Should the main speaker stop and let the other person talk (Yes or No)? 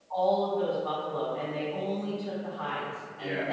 No